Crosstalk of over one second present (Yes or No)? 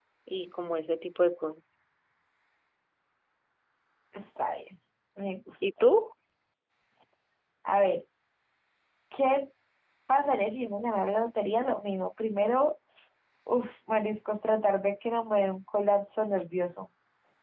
No